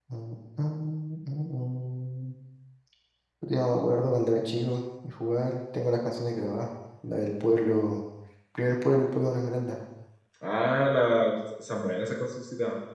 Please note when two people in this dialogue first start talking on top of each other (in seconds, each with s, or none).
none